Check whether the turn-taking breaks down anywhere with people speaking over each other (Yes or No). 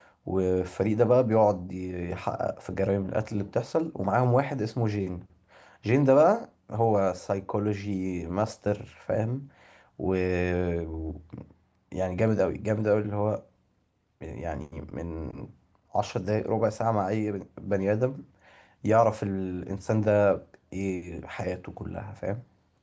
No